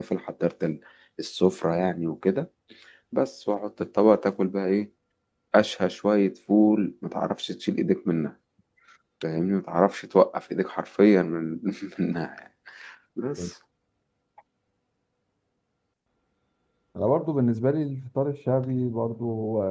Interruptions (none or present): none